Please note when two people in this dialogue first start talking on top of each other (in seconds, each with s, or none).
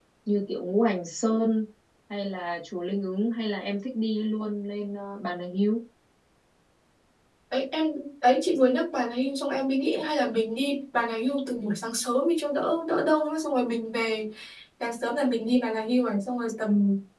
none